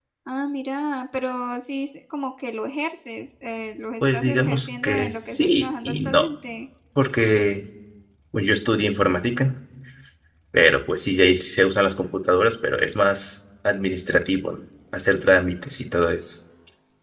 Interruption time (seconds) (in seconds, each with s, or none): 4.0 s